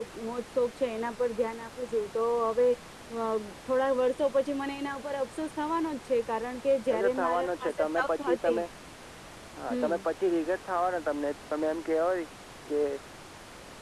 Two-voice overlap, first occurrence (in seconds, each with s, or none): 6.9 s